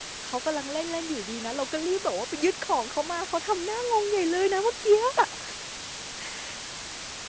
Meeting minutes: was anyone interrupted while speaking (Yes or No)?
No